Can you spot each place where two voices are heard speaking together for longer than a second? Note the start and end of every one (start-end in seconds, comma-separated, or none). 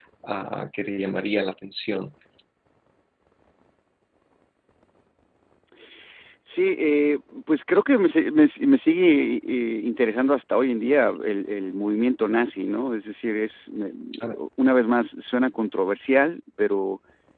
none